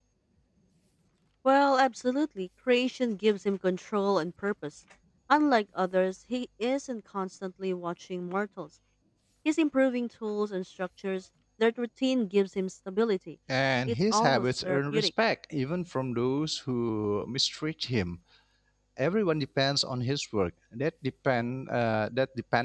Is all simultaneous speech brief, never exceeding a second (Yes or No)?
No